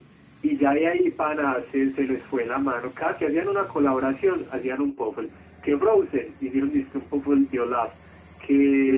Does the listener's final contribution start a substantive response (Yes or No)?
Yes